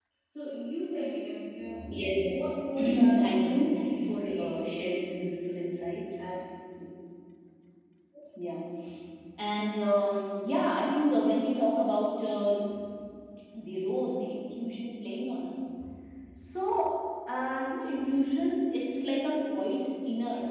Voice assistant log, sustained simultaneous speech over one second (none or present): present